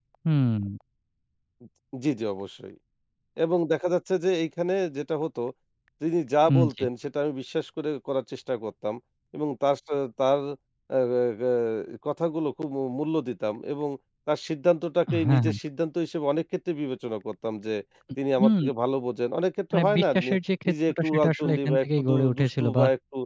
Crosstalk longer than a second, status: present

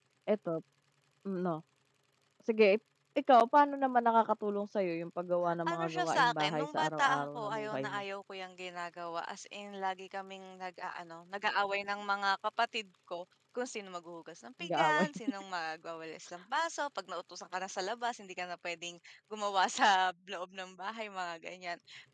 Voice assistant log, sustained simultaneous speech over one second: present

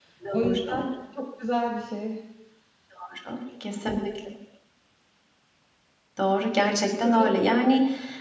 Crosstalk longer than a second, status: none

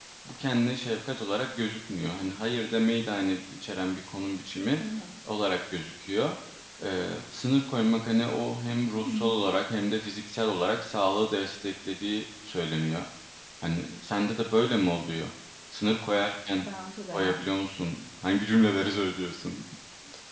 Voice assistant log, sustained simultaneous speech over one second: none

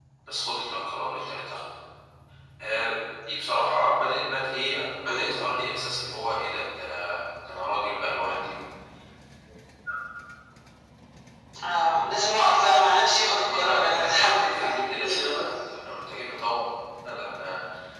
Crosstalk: present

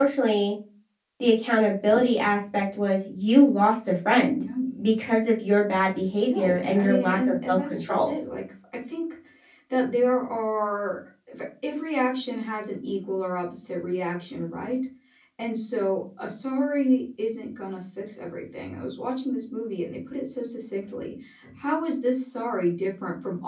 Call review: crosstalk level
present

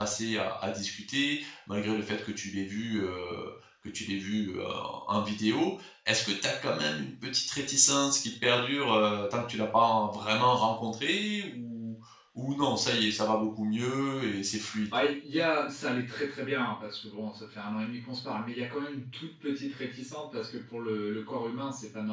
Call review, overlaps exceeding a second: none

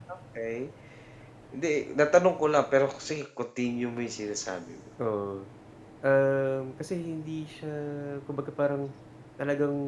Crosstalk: none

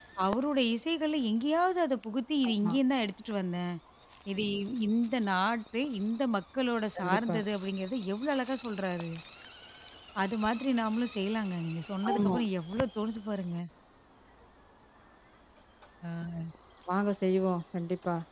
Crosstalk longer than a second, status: none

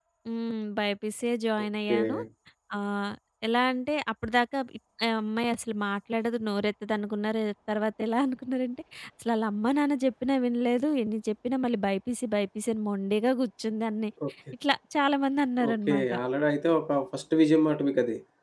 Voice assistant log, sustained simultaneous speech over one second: none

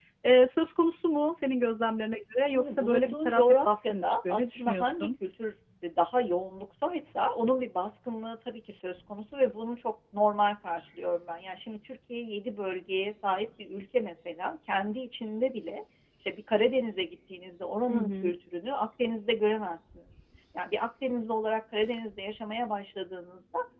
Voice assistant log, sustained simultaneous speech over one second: present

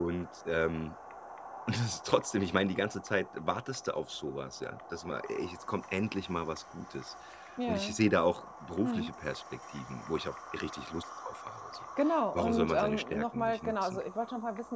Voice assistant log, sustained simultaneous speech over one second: present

